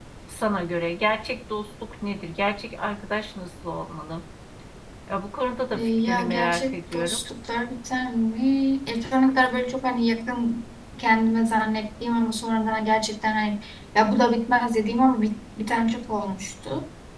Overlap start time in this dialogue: 6 s

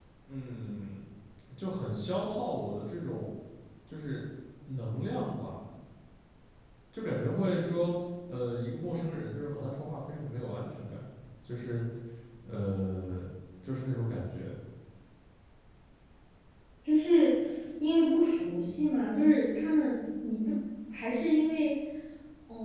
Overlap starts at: none

